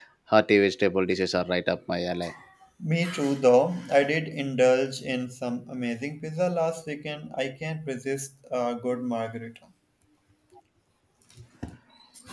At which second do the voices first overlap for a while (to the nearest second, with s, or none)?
none